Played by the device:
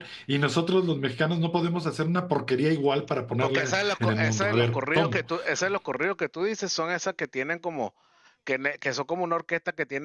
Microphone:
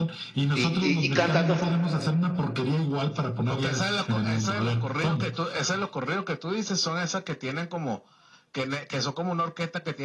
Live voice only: Y, y, y cantando,

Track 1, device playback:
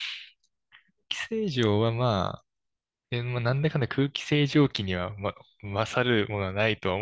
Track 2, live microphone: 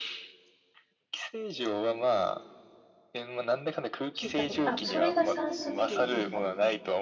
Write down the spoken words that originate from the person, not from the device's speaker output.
聞いたこと。あ、それがサンスベリアですか

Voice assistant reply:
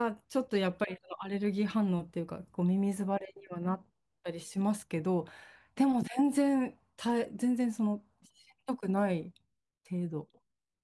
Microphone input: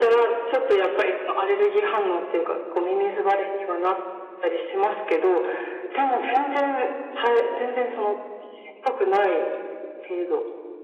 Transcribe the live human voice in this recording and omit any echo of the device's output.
none

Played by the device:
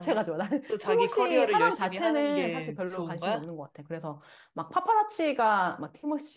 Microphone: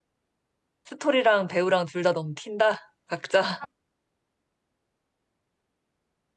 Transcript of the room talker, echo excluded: 스토리랑 배우랑 둘 다 너무 튄다? 각자.

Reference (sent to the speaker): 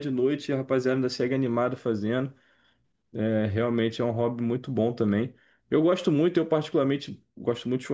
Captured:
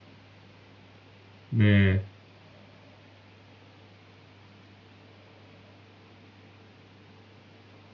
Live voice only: né?

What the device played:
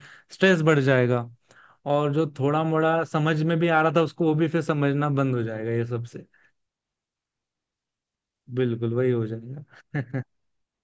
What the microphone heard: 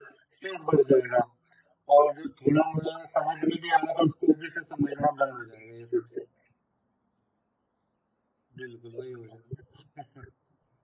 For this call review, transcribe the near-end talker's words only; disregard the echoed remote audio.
none

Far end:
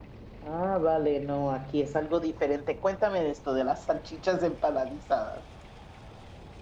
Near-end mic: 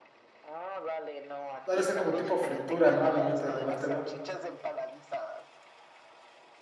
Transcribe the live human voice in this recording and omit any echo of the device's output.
ha de ser como tipo fritura, ¿no? Al momento de comértelo.

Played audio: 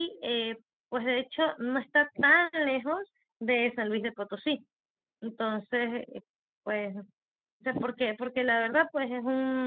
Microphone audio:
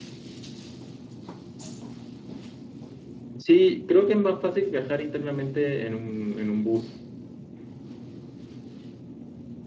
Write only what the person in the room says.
sí, creo que es más fácil viajar internamente en un, en un bus,

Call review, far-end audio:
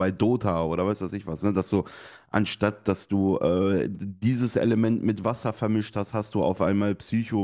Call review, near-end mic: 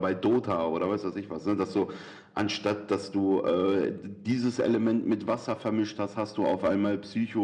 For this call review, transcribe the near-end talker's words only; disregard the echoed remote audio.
none

